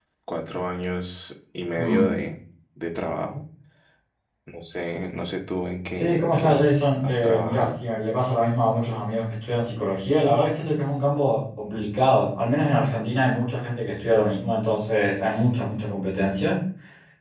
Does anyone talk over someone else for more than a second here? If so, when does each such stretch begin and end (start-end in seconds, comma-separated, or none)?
5.9-7.8